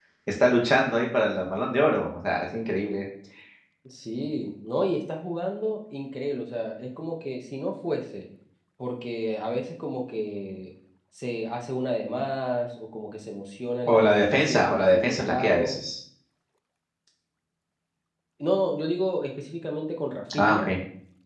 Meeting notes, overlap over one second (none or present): present